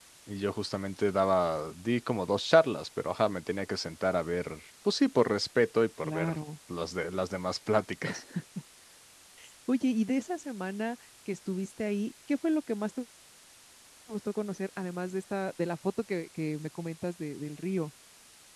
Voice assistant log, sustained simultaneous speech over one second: none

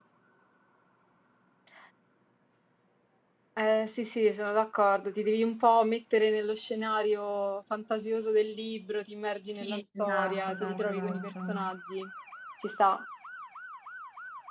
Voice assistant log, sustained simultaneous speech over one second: present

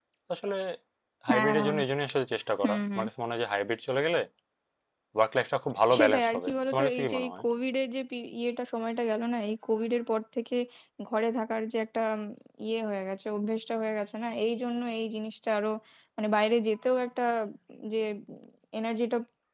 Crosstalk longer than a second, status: present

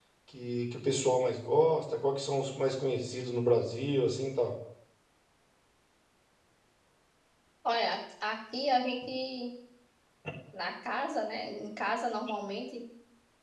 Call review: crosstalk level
none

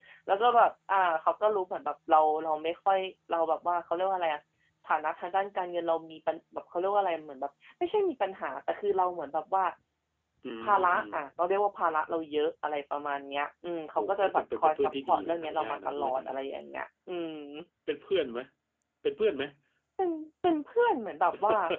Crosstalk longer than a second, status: present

